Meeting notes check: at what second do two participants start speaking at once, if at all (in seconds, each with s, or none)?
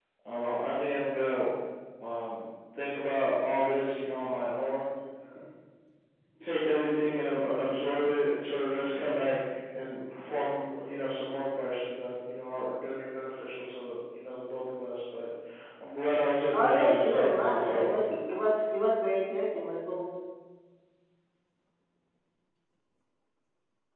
16.5 s